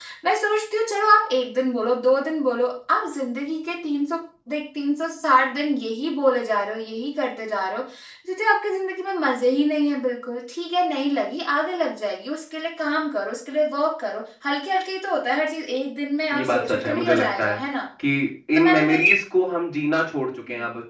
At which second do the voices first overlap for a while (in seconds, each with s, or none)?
16.4 s